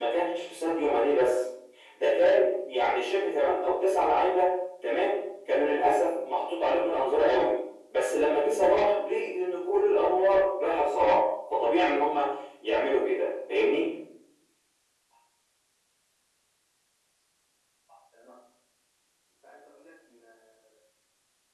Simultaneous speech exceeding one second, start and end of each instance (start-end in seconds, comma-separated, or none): none